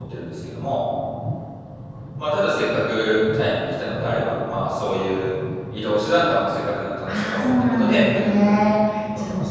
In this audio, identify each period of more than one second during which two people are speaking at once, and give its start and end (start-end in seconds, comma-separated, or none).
7.1-8.7